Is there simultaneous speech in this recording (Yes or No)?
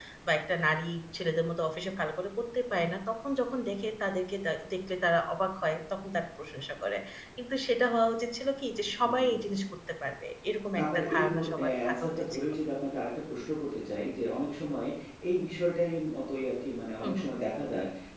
Yes